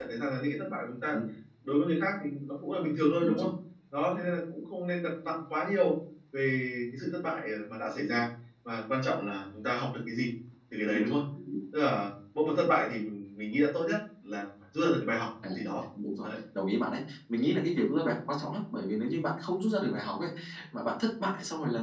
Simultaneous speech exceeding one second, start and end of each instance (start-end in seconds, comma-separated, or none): none